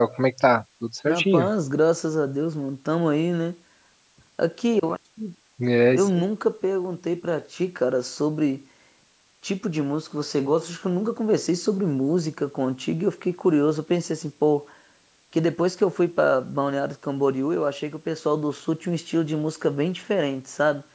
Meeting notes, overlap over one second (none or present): none